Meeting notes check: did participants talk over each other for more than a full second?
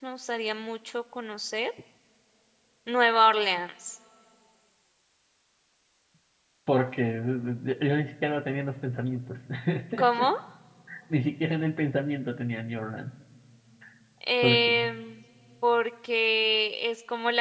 No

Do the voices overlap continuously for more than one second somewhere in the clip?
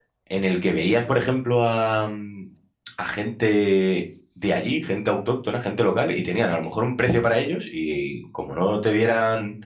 No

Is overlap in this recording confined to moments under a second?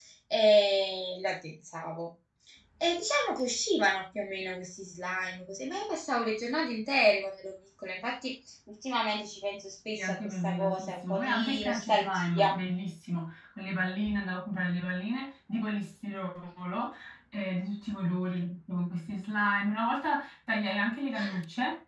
No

